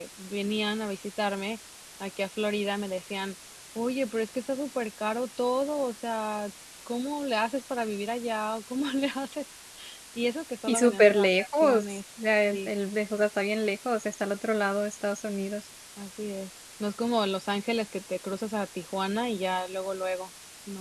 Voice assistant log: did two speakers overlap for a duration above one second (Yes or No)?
Yes